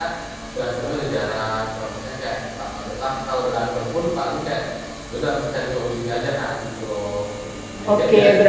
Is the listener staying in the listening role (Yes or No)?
No